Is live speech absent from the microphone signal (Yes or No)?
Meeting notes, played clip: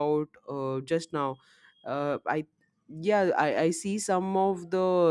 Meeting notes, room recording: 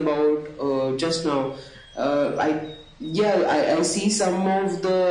Yes